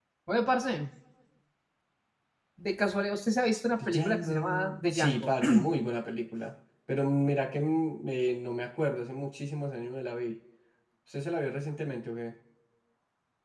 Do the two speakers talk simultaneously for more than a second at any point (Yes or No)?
Yes